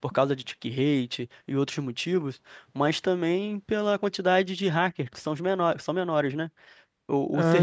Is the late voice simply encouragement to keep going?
Yes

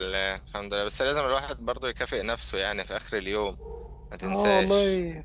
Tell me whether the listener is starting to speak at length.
Yes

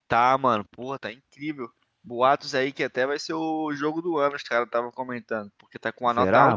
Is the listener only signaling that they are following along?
Yes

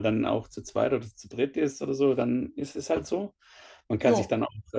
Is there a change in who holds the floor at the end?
No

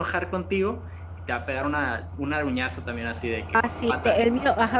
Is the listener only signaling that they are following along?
No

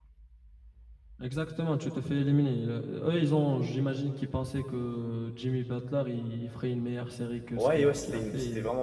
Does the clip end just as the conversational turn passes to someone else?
Yes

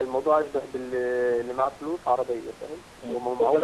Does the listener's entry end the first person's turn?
Yes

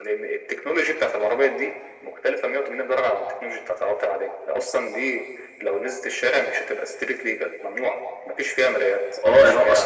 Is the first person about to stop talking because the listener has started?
Yes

